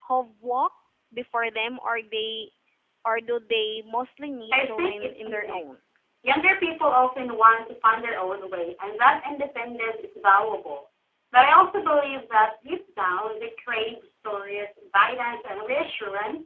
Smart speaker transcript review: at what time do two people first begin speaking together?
5 s

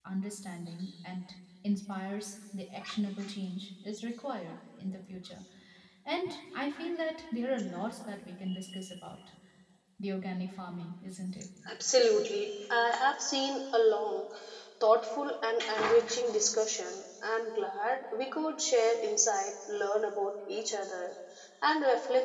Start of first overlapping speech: none

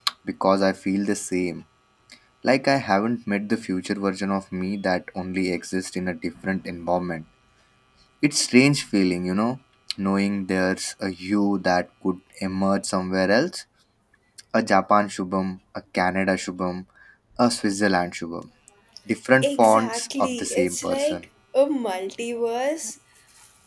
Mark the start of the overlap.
19 s

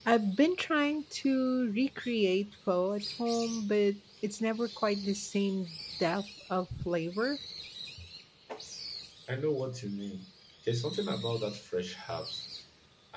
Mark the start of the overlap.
none

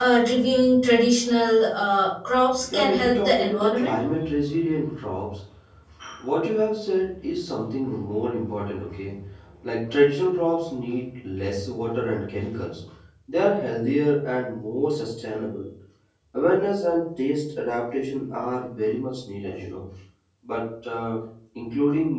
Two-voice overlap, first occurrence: 3 s

